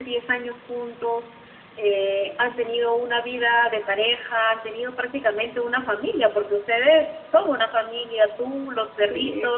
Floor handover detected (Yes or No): No